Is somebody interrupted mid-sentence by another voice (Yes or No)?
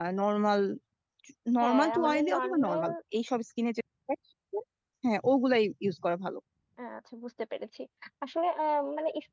Yes